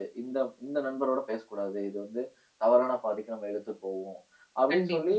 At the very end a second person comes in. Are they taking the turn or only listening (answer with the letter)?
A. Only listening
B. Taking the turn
A